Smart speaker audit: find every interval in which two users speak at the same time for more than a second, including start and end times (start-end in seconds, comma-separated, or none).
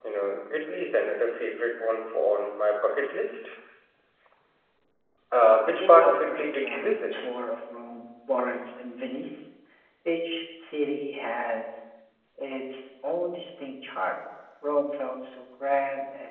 5.7-7.0